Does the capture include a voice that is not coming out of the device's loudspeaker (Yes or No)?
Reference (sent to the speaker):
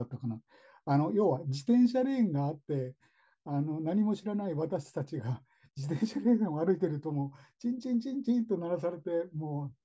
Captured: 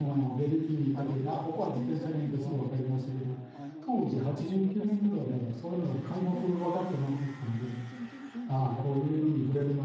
Yes